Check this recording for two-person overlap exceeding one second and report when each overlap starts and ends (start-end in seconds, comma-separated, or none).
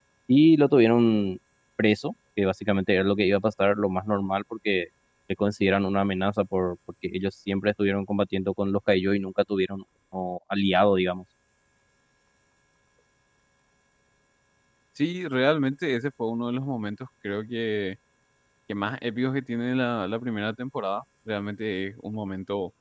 none